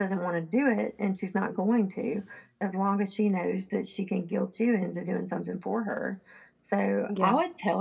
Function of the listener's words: listening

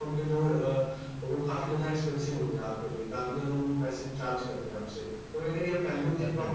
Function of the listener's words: listening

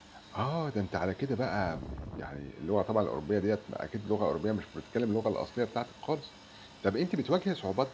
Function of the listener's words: listening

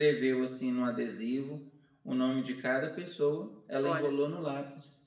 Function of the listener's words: listening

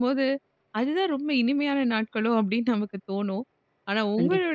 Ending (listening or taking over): listening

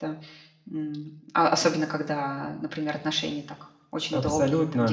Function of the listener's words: taking over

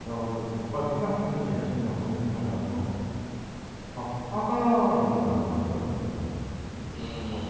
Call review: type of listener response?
taking over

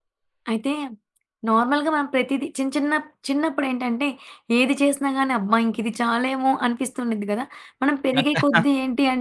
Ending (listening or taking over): listening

